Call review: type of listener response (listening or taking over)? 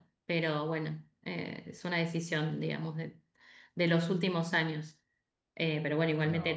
listening